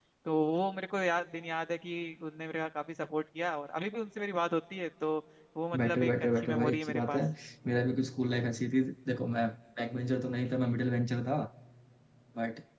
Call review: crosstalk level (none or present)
present